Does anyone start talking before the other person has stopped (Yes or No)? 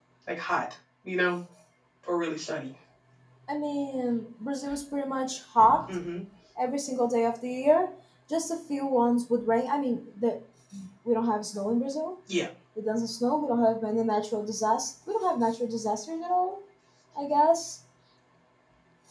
No